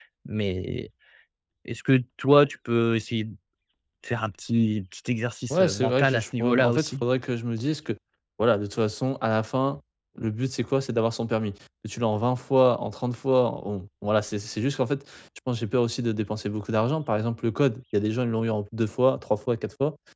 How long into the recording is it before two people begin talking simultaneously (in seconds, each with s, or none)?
5.5 s